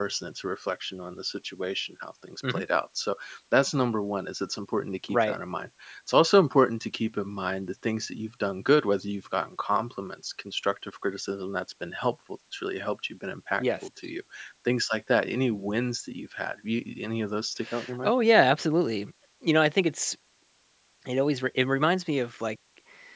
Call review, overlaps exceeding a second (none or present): none